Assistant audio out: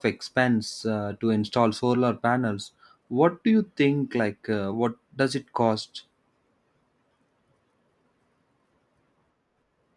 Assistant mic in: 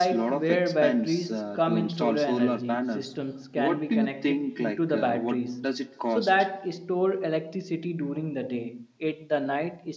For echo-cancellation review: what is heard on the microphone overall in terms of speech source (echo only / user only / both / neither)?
both